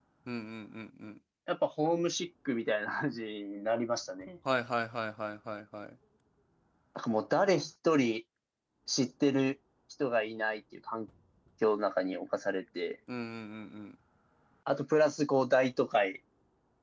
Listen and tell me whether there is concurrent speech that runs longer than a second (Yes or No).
No